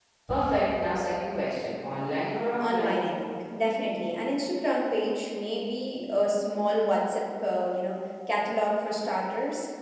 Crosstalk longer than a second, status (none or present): none